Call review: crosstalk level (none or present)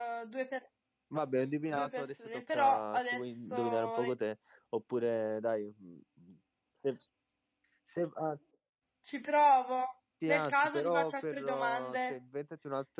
present